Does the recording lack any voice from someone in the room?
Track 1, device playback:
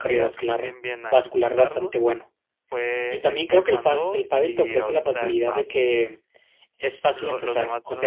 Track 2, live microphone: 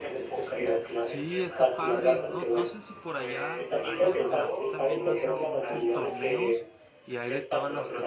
No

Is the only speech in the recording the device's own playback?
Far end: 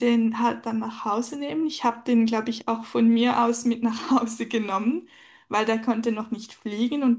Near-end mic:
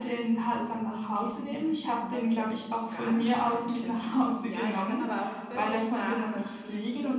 No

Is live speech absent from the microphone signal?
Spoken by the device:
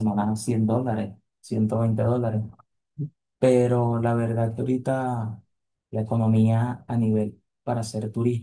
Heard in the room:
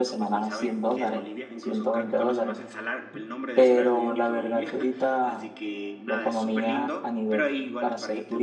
No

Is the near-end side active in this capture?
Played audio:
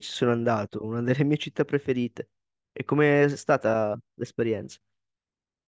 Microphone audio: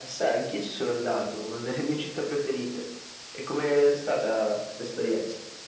No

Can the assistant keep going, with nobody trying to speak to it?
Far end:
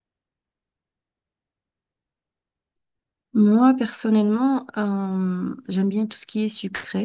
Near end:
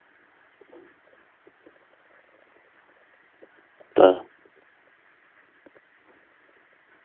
No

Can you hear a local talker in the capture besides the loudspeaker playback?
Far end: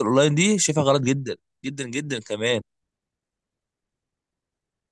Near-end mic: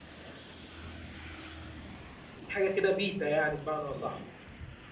Yes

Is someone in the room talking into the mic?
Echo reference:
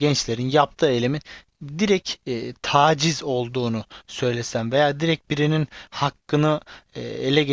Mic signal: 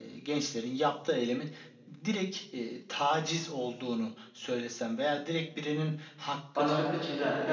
Yes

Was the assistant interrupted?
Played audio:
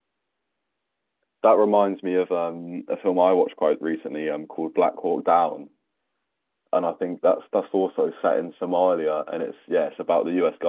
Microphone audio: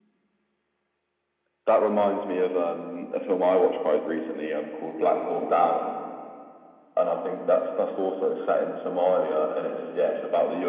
No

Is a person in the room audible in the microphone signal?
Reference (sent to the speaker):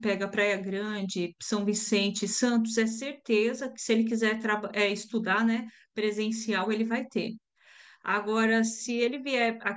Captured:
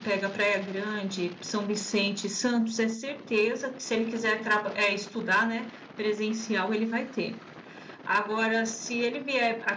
No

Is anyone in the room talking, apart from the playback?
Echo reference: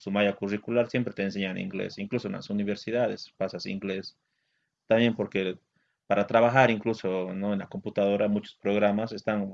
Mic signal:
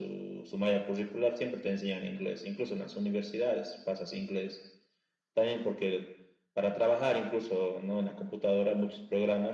No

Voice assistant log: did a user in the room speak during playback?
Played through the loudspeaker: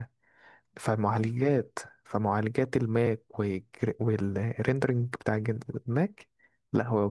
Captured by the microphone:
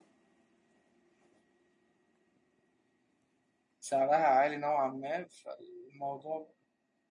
Yes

